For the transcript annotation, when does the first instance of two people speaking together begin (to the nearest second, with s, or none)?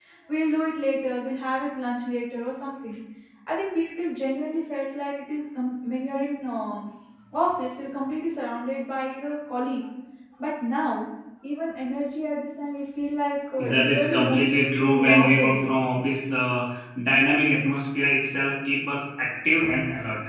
14 s